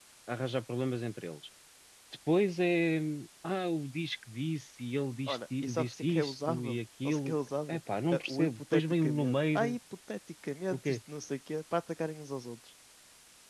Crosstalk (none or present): present